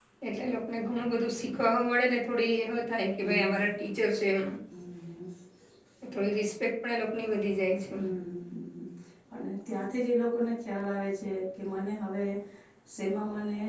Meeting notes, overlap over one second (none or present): none